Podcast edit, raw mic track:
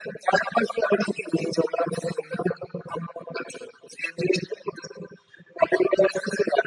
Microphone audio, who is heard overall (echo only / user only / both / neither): echo only